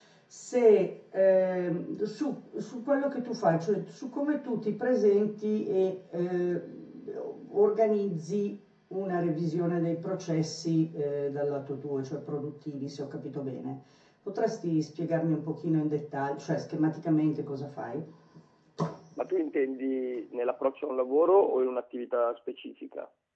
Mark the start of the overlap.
none

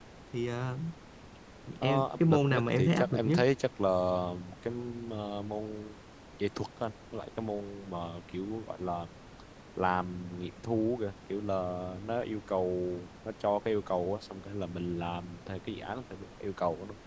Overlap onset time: 1.8 s

